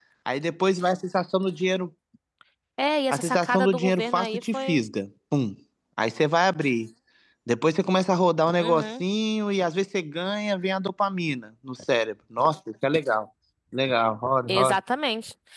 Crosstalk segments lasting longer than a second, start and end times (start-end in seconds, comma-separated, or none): 3.1-4.8